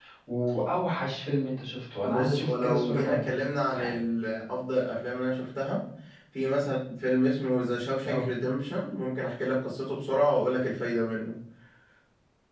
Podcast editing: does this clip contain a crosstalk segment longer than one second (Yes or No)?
Yes